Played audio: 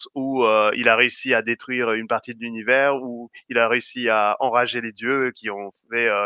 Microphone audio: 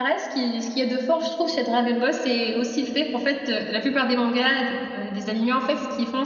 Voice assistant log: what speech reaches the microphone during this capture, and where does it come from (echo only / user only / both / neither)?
user only